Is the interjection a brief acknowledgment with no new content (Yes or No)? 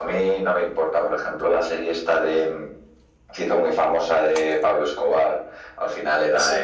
Yes